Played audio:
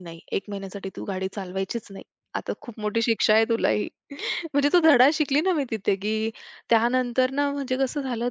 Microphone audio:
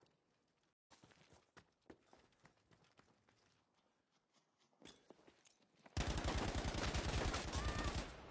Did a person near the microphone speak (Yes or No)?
No